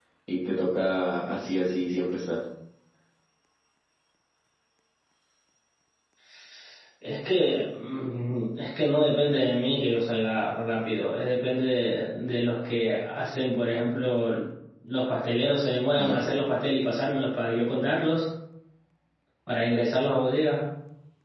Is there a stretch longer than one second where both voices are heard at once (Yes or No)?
No